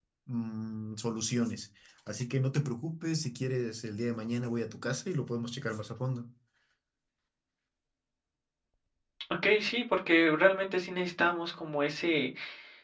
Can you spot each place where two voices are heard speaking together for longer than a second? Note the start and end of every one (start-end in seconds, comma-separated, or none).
none